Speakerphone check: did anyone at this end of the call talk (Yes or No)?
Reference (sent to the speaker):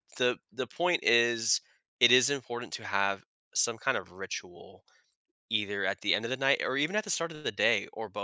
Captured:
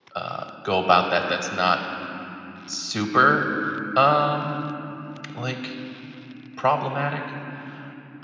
Yes